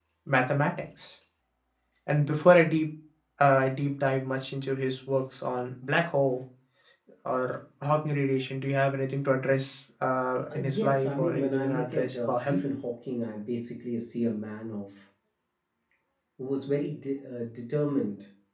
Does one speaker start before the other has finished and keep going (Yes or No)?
Yes